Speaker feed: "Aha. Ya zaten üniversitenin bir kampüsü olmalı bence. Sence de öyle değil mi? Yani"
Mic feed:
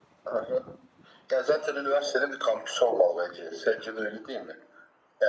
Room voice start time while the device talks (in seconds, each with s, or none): none